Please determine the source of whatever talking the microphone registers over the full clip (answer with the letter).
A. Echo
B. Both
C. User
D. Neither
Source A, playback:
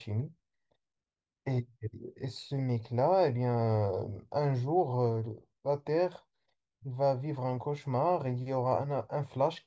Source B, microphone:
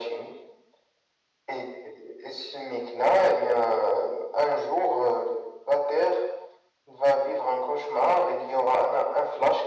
A